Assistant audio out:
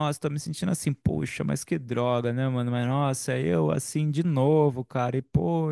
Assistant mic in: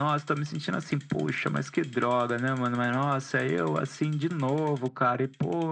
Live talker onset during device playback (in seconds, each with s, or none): none